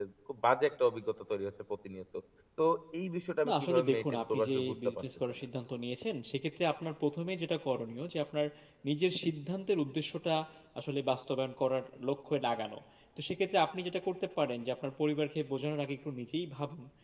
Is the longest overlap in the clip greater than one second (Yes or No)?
Yes